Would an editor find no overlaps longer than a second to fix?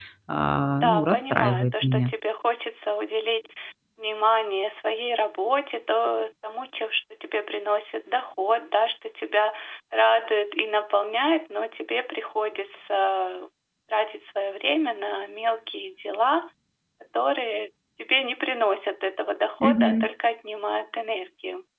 No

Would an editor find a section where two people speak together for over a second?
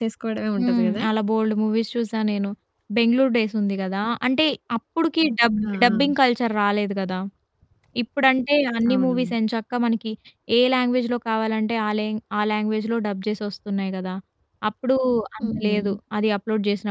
No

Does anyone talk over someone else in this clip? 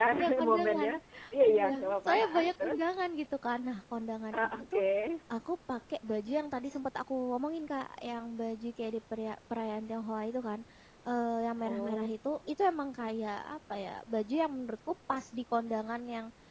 Yes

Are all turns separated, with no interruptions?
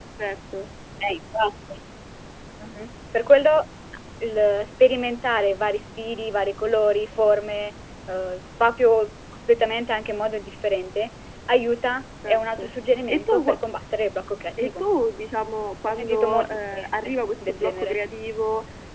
No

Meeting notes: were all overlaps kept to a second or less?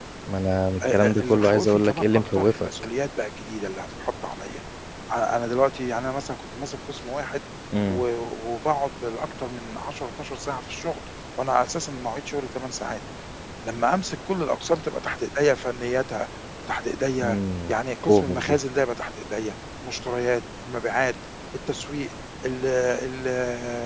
No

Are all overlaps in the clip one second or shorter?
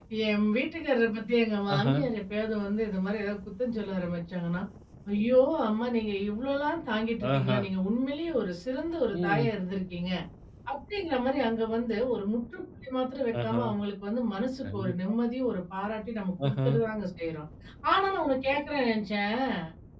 Yes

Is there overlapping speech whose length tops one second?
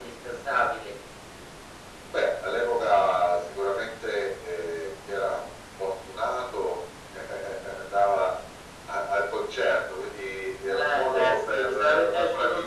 Yes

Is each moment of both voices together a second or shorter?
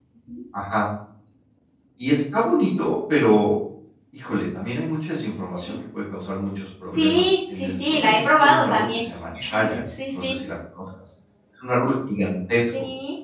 No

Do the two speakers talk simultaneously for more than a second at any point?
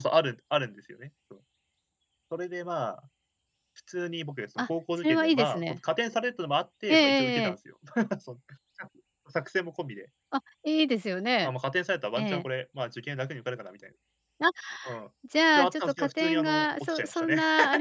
Yes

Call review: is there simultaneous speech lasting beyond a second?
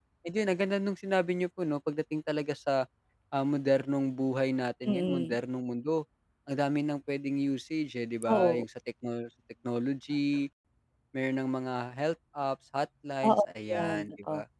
Yes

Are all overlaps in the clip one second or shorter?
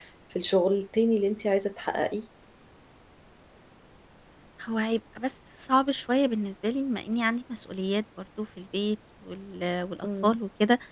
Yes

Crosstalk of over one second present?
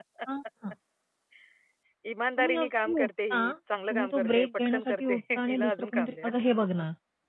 Yes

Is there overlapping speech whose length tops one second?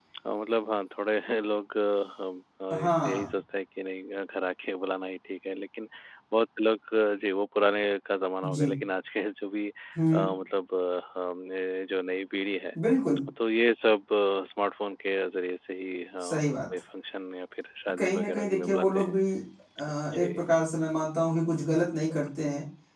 Yes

